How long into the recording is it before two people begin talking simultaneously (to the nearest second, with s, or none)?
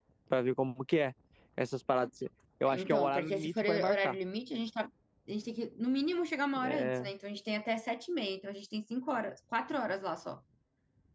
3 s